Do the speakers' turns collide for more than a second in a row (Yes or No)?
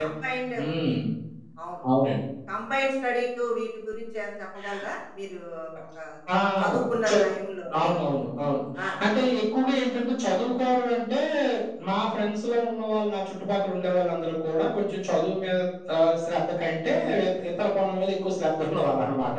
No